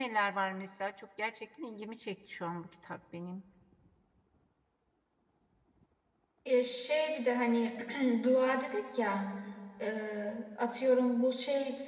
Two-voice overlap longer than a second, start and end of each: none

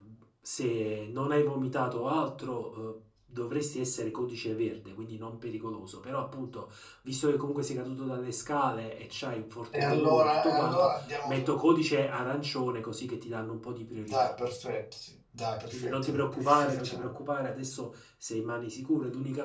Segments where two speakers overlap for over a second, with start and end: 9.7-11.5, 15.7-17.1

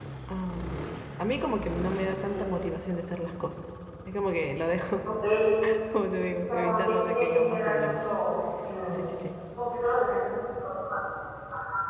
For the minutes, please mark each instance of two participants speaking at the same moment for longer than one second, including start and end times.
6.5-8.0

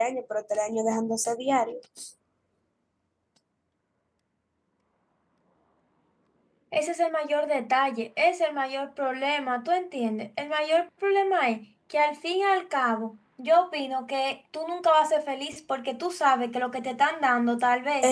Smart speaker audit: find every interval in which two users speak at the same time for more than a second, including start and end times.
none

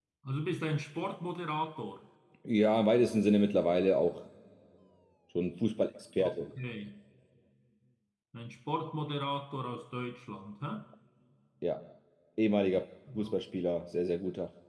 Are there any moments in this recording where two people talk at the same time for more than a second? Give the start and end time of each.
none

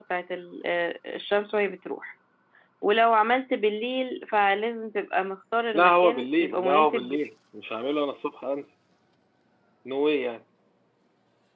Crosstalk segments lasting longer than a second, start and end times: 5.7-7.3

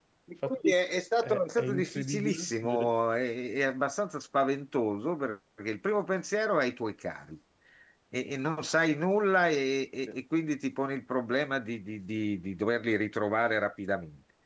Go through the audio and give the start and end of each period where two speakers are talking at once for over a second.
1.2-2.9

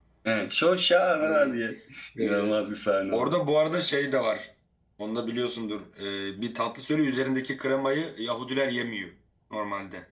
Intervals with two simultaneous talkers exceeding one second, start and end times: none

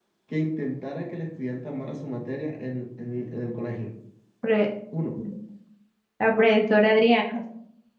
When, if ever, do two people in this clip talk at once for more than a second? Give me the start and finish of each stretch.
none

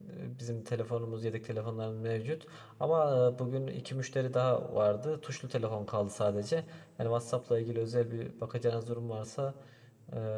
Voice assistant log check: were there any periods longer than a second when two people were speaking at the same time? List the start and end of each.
none

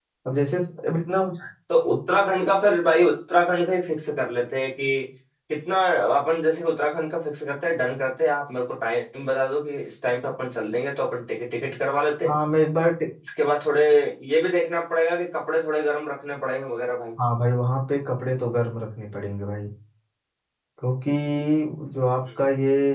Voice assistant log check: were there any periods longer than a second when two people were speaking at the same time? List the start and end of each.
none

